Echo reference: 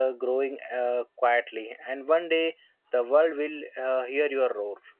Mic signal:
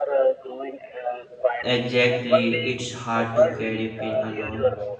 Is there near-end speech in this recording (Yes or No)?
Yes